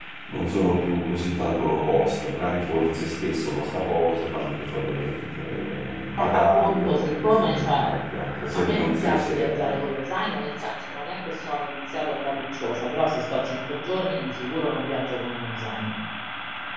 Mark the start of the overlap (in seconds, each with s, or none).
6.2 s